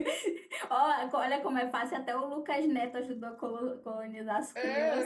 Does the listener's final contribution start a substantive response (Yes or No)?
Yes